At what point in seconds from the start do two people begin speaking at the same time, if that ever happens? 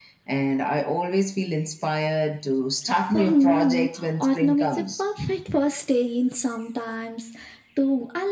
3 s

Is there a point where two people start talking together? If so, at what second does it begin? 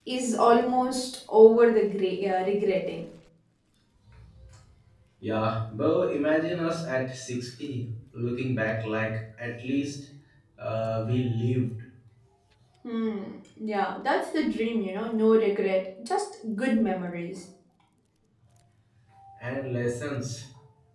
none

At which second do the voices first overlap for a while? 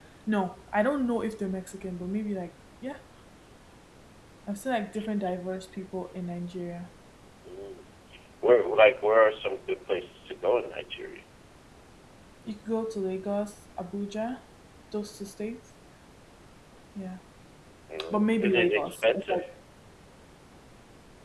18 s

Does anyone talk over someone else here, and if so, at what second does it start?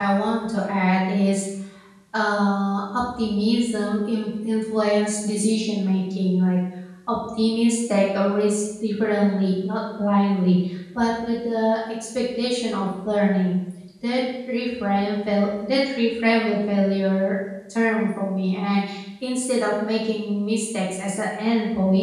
none

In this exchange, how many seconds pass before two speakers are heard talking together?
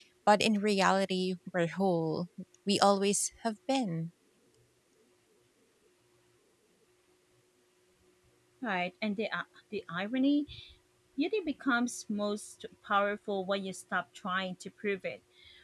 none

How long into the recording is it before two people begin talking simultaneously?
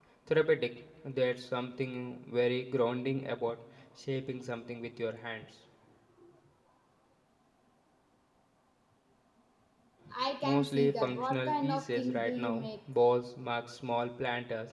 10 s

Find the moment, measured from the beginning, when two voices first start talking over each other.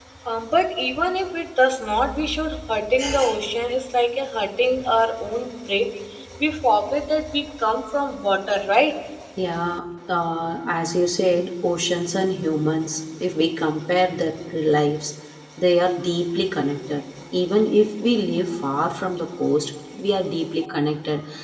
none

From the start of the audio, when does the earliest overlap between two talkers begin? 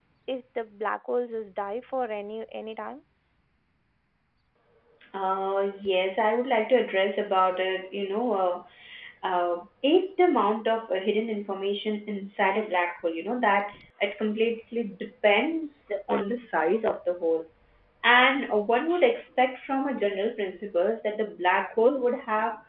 none

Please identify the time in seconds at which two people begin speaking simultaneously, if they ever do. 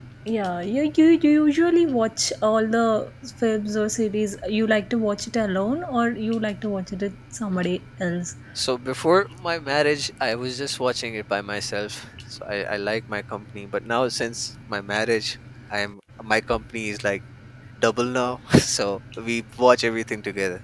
none

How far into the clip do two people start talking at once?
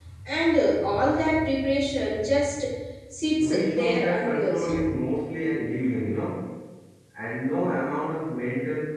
3 s

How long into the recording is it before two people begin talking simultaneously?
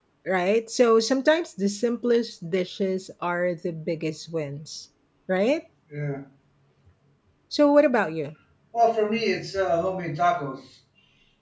none

